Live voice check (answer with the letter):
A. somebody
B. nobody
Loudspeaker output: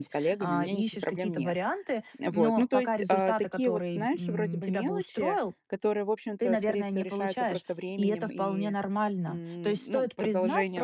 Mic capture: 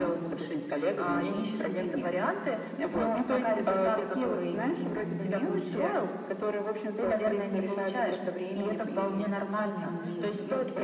A